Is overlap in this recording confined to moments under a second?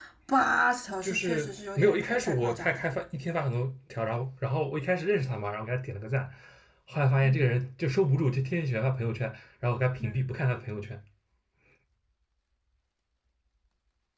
No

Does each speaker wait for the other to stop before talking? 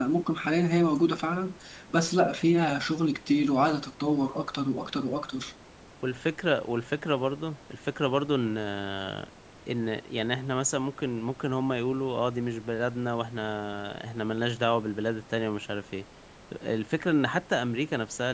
Yes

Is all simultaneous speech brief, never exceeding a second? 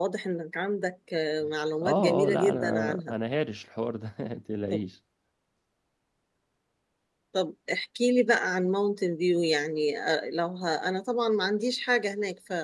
No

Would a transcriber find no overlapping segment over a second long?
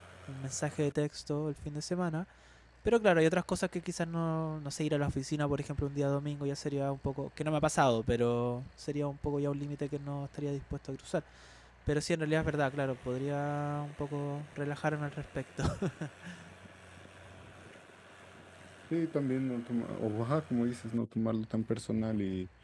Yes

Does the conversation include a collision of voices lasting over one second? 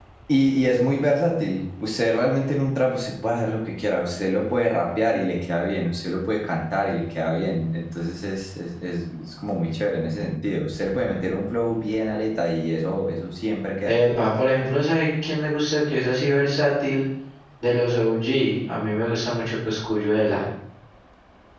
No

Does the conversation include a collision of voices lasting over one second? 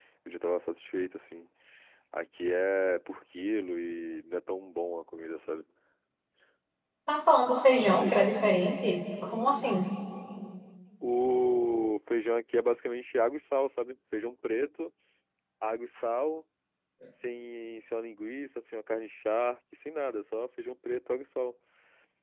No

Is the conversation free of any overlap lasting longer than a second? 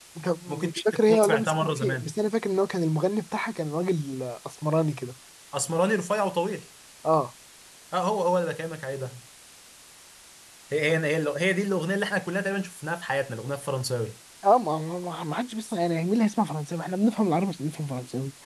No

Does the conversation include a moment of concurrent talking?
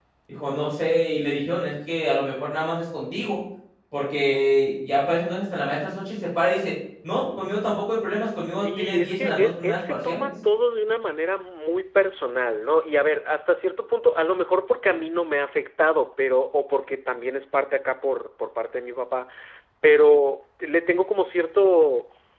Yes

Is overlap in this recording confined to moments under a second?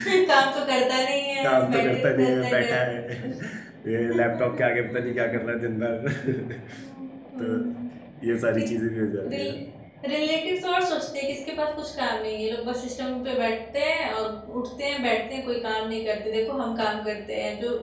No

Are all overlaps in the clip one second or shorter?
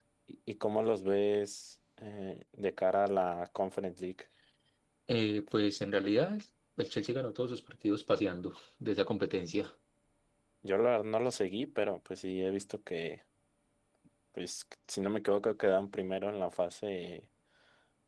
Yes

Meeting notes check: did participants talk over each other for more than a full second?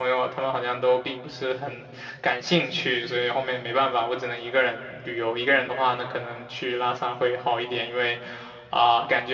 No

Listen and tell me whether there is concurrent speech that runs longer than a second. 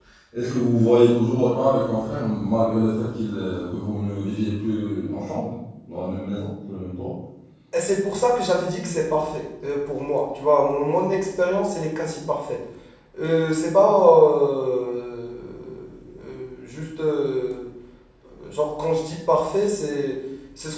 No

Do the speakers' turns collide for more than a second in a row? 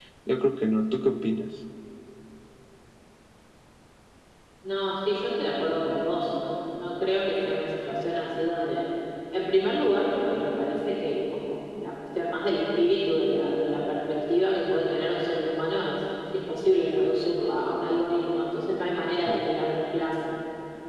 No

